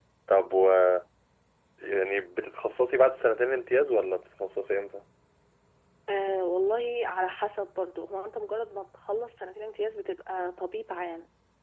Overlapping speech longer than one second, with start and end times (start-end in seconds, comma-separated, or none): none